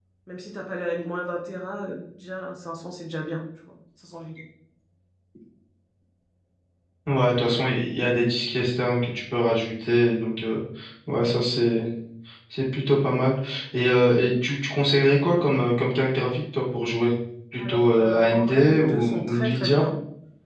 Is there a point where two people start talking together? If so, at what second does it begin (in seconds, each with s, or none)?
17.6 s